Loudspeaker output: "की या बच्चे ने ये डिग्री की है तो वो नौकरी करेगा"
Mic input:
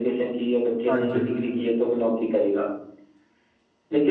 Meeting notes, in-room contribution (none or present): present